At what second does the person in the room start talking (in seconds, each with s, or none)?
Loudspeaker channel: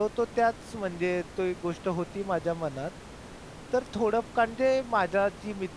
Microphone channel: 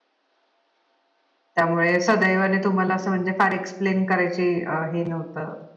1.5 s